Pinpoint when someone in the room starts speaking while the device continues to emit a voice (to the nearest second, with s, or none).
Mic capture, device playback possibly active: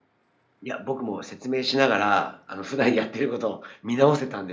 none